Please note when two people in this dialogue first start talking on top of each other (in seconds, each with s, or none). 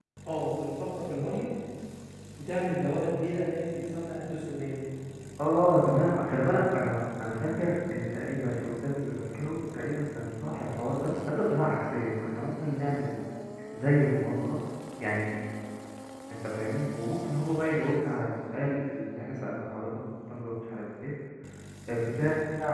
none